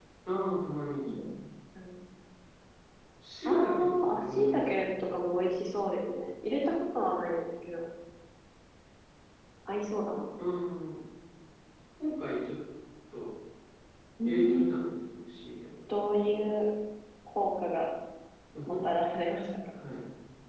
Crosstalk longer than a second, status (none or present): present